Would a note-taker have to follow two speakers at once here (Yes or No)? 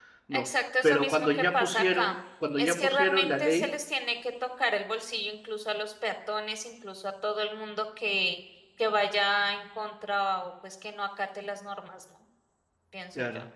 Yes